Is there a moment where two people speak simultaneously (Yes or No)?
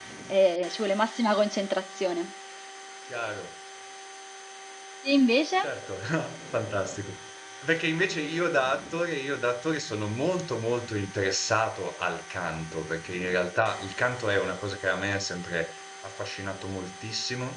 No